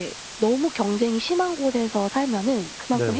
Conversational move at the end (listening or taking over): listening